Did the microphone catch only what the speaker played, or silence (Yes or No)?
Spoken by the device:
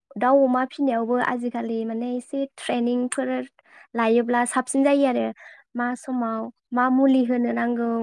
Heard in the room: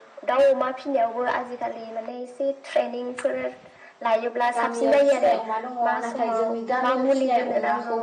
No